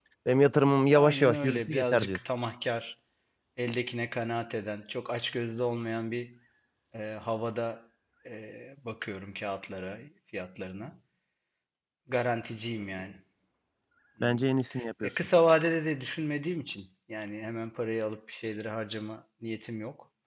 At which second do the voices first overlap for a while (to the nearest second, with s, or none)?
1 s